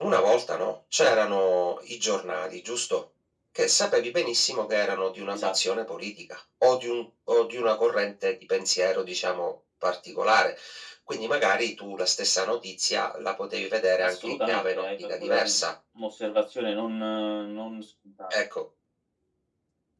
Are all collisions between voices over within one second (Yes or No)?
No